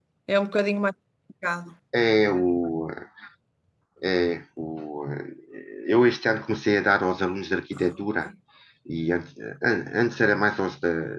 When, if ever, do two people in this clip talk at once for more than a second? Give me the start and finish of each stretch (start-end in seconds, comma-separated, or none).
none